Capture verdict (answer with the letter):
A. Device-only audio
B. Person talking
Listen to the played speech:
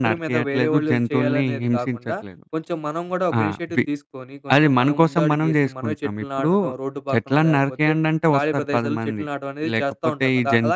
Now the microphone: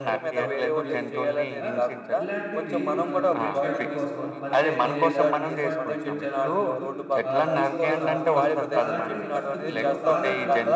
B